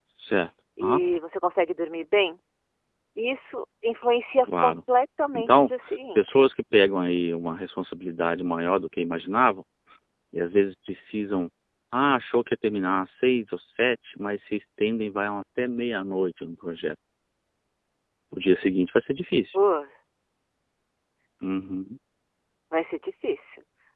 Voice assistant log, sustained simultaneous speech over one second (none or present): none